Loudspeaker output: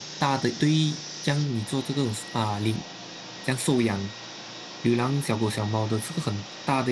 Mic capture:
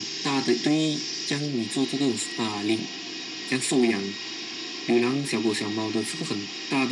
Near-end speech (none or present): none